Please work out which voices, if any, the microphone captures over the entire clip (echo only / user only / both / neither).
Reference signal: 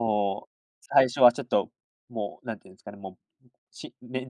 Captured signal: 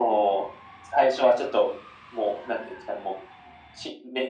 echo only